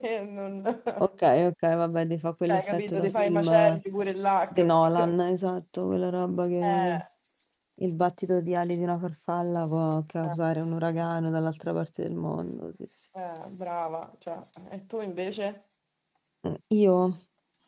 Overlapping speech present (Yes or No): Yes